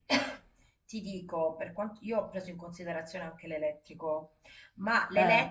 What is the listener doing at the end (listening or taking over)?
listening